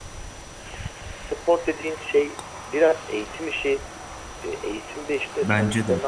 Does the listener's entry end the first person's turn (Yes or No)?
No